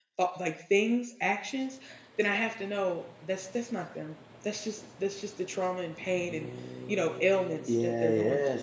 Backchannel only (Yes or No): No